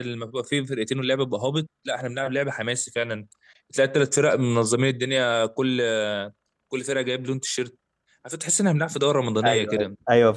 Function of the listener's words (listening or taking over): taking over